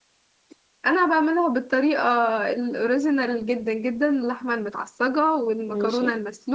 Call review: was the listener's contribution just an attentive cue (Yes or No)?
Yes